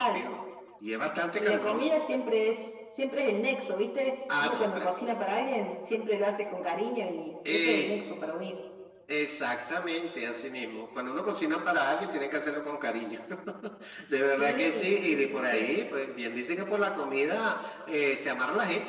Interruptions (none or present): present